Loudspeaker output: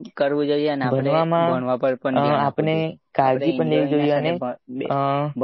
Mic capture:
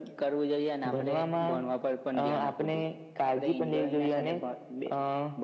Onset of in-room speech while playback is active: none

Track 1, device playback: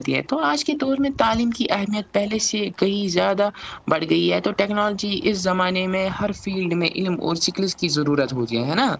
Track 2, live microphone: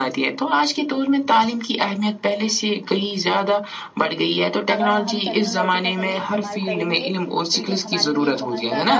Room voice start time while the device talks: 5 s

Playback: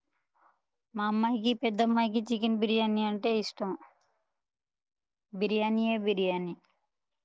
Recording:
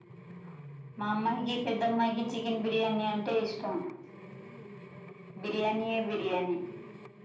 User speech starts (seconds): none

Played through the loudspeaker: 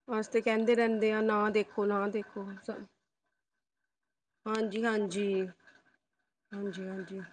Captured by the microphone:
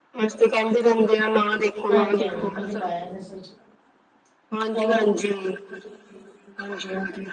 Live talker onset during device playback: 2 s

